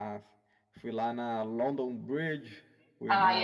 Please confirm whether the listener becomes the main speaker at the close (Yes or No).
Yes